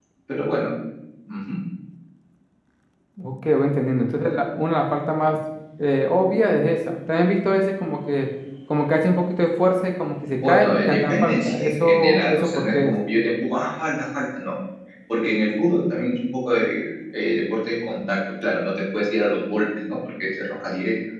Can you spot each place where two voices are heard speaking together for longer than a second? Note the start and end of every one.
10.4-12.9

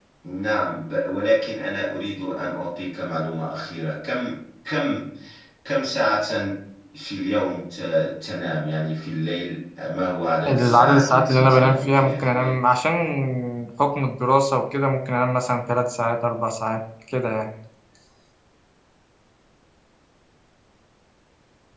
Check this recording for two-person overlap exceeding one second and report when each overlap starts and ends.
10.4-12.5

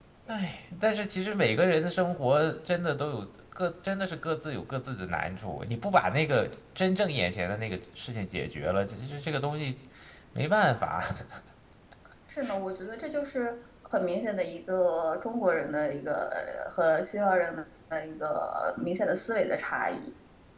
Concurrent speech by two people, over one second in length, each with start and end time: none

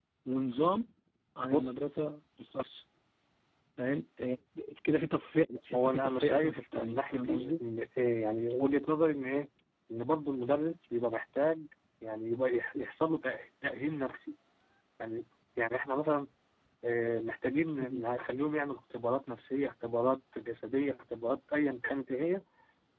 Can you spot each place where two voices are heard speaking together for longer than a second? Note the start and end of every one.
5.8-7.6

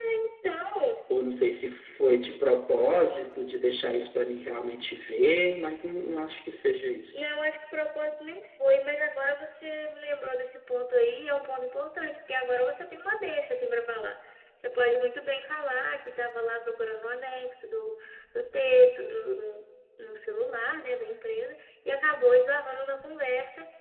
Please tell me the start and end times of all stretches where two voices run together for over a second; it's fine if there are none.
none

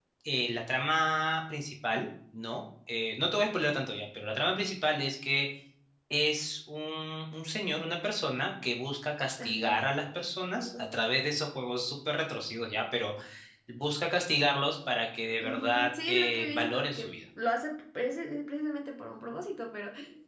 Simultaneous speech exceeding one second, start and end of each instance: 15.4-17.1

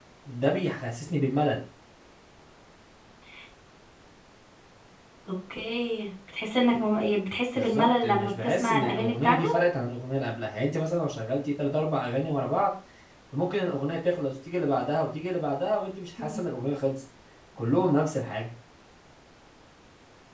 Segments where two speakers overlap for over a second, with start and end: 7.5-9.5

